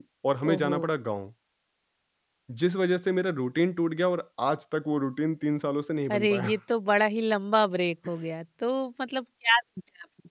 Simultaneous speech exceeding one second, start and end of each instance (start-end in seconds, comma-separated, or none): none